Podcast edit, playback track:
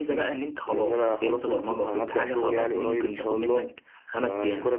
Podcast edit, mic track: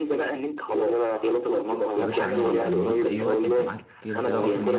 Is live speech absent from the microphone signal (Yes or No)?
No